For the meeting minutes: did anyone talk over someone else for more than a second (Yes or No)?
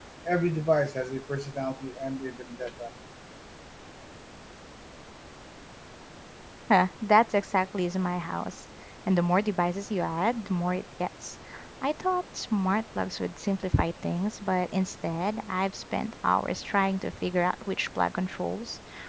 No